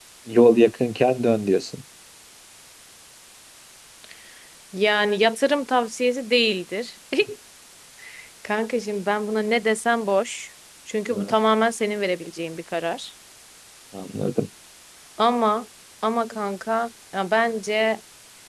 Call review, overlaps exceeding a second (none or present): none